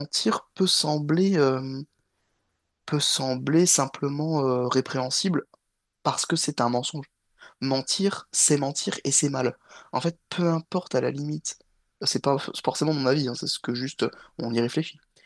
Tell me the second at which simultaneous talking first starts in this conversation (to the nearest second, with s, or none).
none